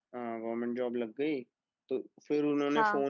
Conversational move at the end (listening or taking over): listening